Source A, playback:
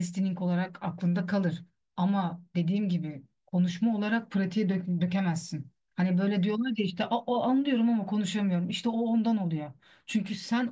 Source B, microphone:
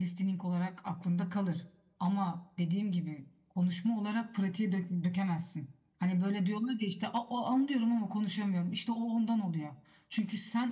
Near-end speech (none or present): none